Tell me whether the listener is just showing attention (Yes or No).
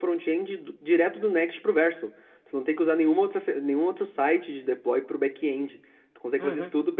No